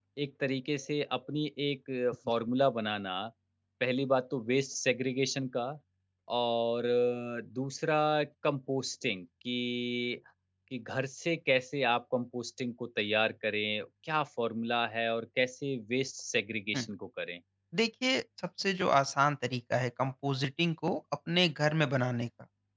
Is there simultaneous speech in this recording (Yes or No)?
No